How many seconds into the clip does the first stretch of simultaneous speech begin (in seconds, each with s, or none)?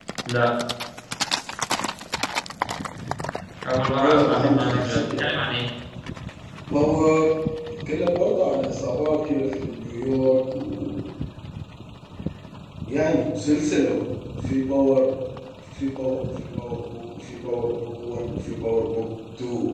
4.0 s